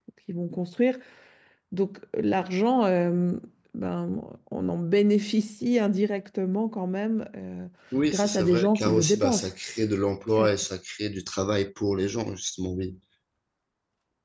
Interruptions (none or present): present